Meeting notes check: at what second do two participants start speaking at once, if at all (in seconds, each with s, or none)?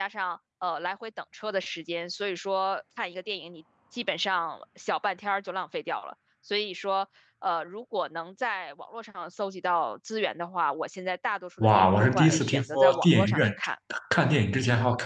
11.6 s